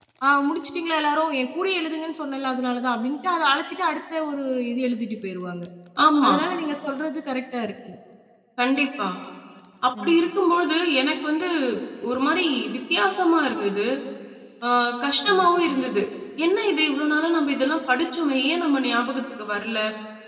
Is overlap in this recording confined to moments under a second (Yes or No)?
Yes